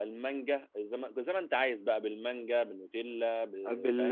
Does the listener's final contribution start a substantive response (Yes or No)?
Yes